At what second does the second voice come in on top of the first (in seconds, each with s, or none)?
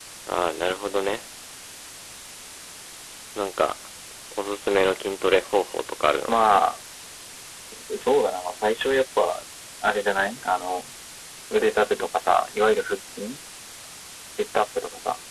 none